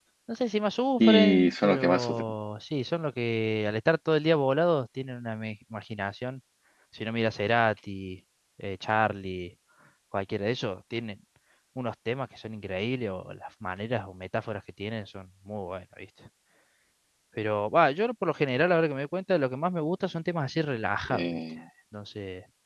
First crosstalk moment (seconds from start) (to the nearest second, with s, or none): 1 s